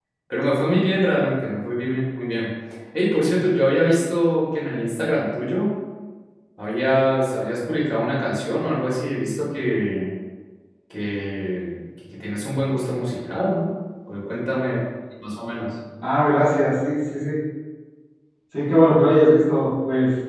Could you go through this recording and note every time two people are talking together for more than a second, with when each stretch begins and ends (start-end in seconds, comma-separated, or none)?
none